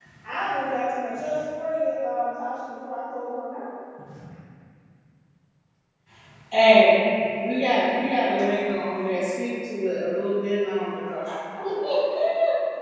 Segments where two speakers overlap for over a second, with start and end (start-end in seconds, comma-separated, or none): none